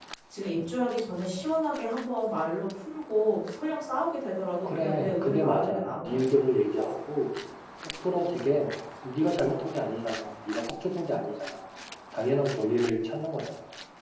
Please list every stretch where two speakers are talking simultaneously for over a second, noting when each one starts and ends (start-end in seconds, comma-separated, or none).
4.6-6.2